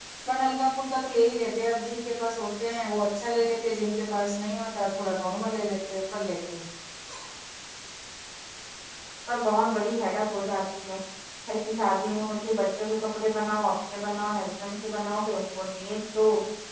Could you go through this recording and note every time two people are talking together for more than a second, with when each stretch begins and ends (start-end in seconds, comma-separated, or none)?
none